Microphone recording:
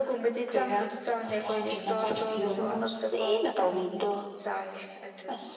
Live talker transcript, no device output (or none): ꯁꯀꯤꯦꯗꯣ ꯑꯁꯅꯦ